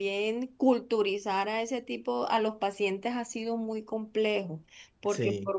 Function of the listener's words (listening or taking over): listening